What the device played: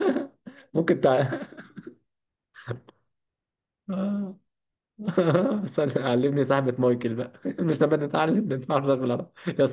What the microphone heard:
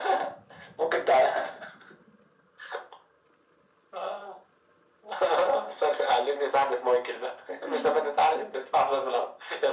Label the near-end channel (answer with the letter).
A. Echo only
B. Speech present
B